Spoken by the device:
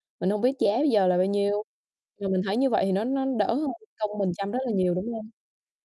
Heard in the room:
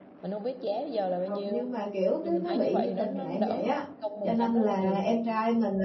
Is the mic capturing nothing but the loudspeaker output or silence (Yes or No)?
No